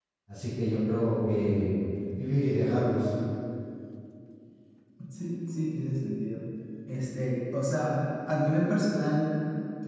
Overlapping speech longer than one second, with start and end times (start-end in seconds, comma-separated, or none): none